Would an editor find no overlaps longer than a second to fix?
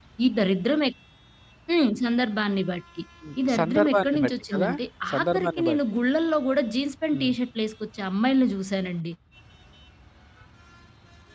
No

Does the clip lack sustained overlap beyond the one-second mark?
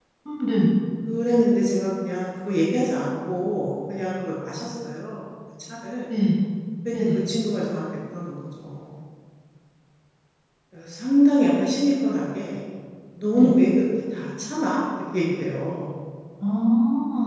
Yes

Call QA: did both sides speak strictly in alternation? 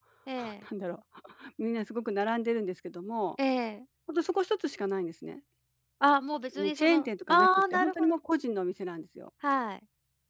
No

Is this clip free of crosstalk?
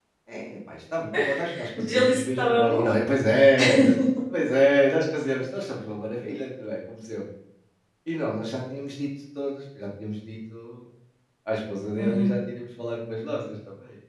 No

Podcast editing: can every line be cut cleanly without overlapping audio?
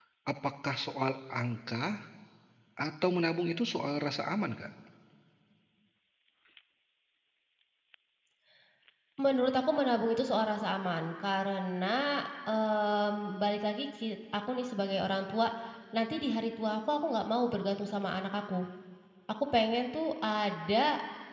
Yes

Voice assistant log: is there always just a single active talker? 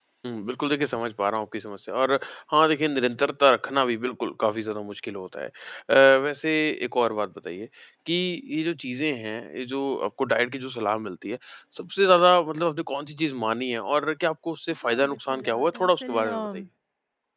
No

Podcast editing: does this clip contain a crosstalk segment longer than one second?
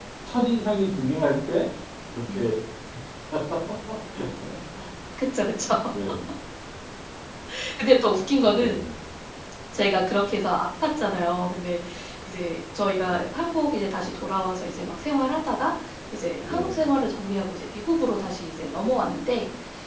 No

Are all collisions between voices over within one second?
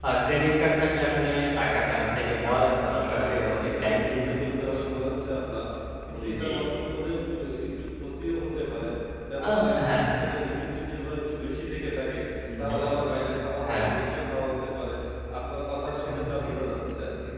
No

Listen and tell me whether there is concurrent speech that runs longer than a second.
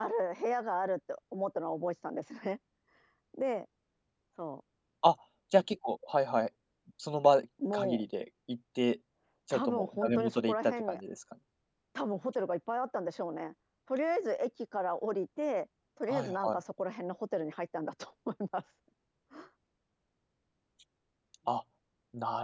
Yes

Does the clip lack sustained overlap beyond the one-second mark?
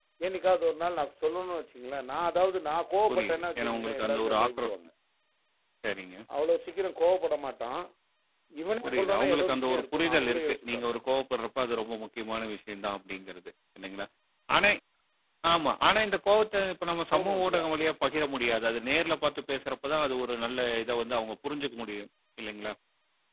No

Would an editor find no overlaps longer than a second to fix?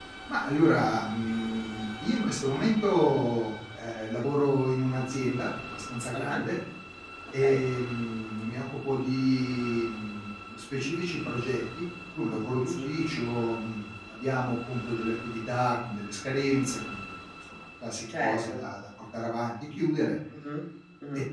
Yes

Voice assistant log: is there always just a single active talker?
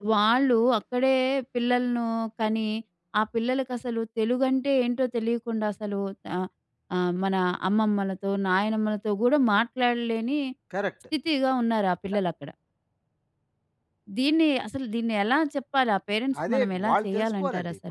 No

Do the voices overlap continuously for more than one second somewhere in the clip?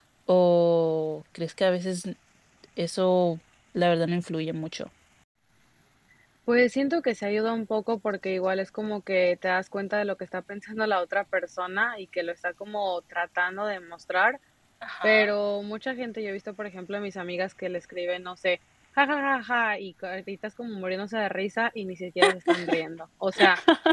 No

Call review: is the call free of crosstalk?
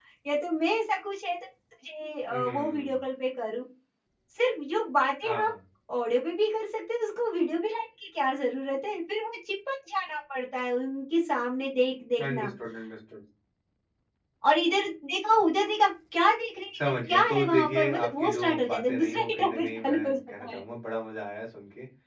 No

